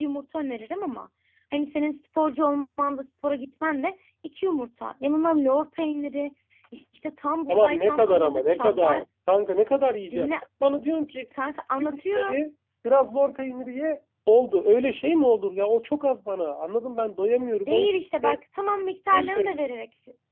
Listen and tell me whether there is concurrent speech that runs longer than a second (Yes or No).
Yes